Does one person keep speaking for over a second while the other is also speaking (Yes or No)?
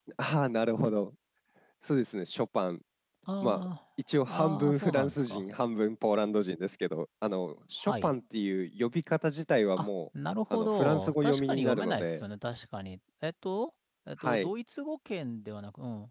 Yes